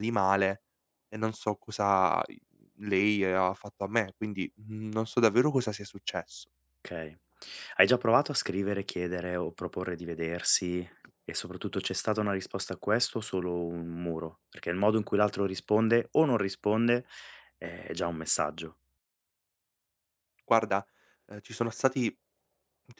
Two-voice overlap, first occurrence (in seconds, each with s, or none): none